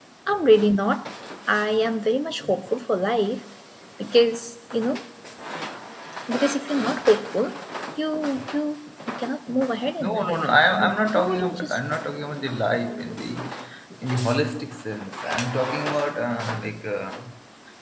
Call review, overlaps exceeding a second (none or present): present